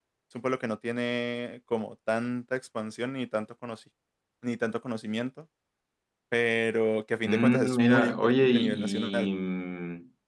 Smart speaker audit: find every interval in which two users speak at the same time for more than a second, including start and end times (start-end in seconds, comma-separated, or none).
7.2-9.3